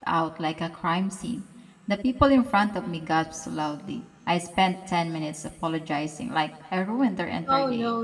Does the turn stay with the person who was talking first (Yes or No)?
No